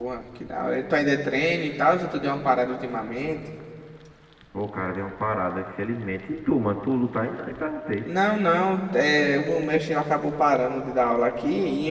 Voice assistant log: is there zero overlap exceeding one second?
Yes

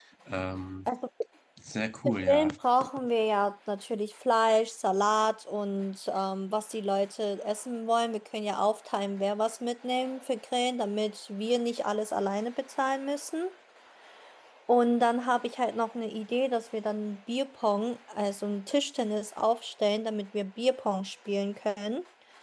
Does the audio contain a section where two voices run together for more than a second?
No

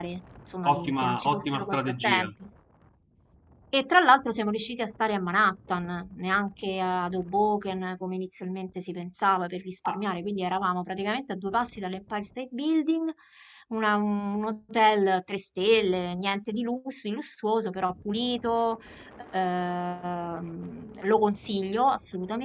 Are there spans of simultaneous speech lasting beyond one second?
Yes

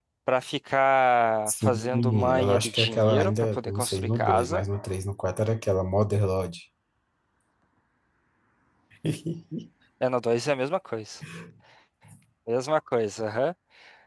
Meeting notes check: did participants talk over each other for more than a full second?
Yes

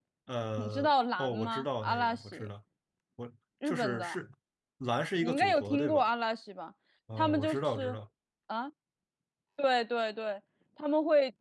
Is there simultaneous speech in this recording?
Yes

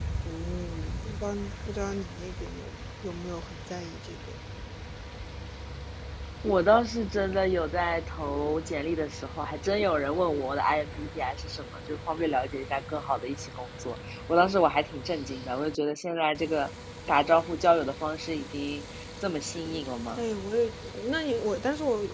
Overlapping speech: No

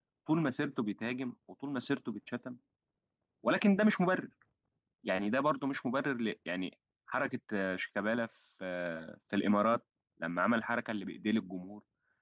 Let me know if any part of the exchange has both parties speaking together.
No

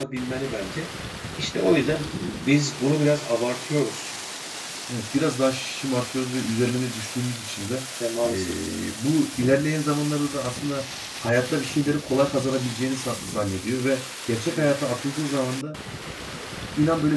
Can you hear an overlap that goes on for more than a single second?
No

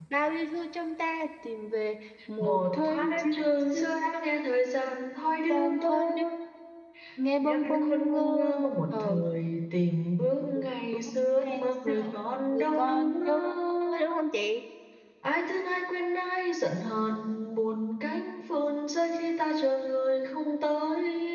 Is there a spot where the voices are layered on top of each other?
Yes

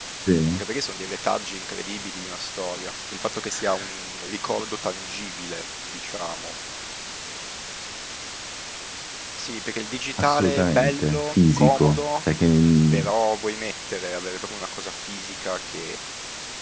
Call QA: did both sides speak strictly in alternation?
No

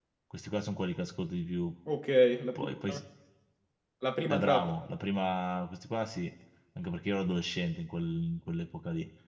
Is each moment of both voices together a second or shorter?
Yes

